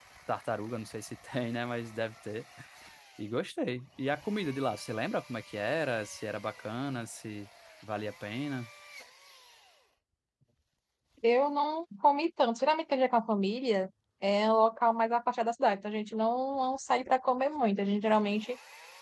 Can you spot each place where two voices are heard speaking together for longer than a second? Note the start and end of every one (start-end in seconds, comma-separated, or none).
none